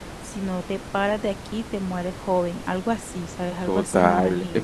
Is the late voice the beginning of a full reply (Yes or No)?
Yes